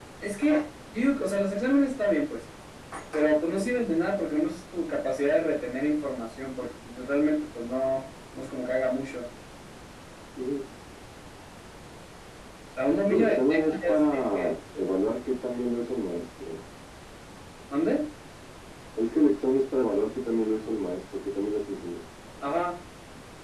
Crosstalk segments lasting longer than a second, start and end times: 13.1-14.5

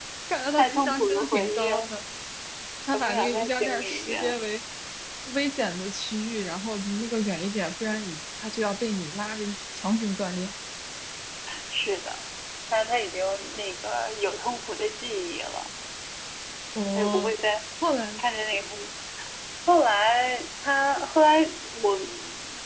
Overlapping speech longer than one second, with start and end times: 0.5-1.9, 2.9-4.4

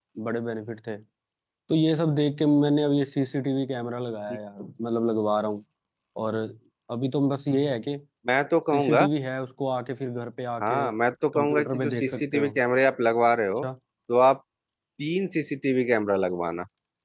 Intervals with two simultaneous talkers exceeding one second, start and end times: 11.3-12.6

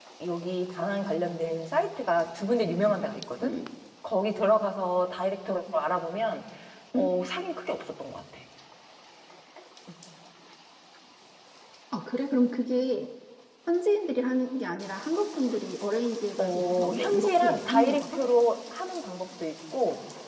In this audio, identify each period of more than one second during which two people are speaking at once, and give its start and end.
16.4-18.2

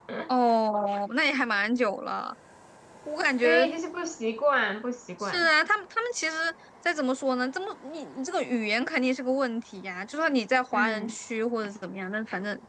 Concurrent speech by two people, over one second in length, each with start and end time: none

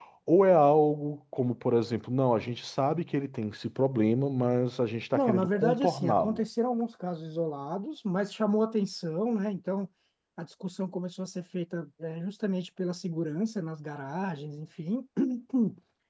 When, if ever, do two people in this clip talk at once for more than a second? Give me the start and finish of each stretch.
5.1-6.4

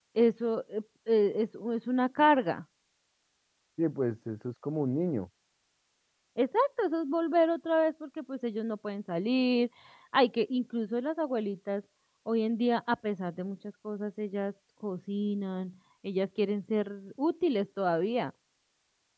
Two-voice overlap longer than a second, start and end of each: none

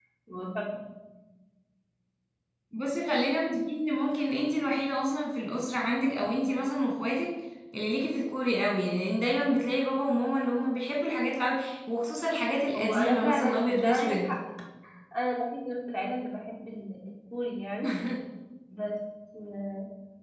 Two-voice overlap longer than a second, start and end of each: 12.8-14.3

